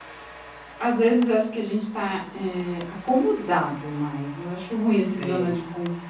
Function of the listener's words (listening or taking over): listening